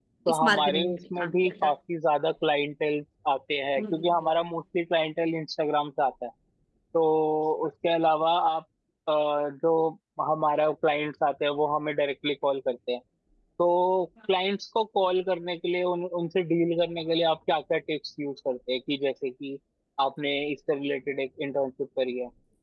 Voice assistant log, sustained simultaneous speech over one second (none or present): present